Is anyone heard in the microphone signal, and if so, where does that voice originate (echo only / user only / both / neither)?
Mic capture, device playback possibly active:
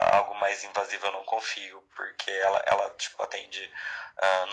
echo only